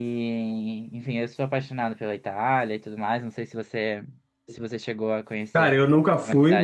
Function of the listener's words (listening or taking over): taking over